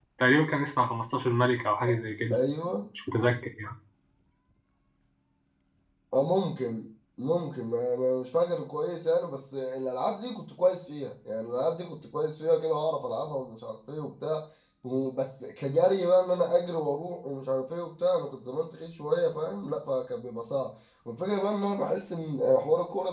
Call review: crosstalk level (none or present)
none